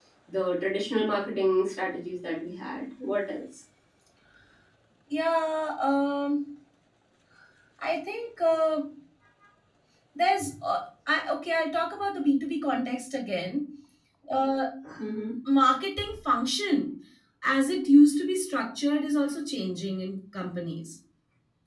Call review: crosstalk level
none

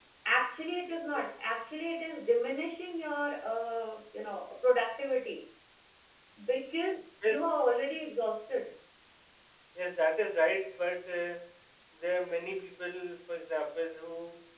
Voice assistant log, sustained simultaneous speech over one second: none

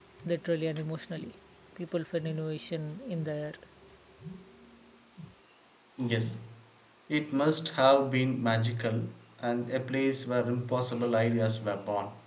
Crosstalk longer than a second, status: none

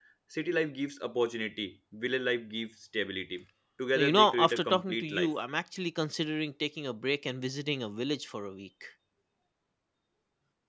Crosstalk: present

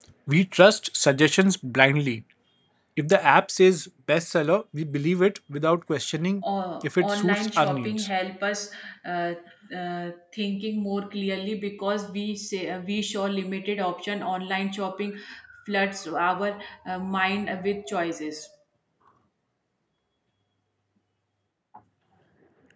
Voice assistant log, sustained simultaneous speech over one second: present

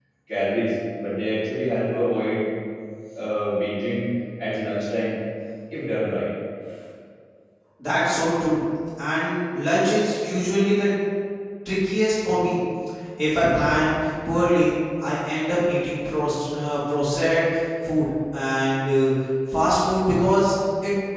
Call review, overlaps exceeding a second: none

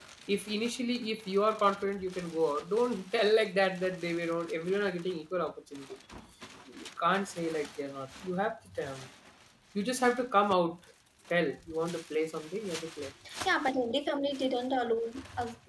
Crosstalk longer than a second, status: none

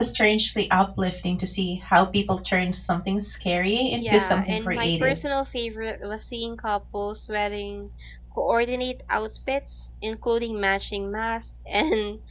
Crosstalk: present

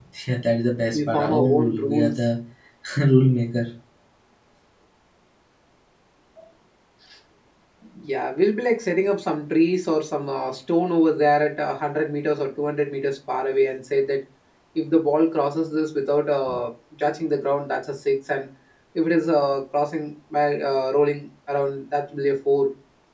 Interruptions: present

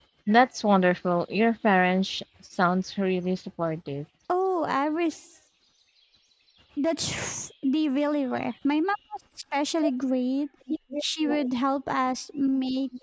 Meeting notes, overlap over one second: none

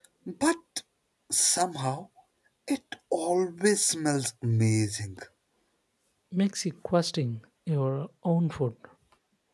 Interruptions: none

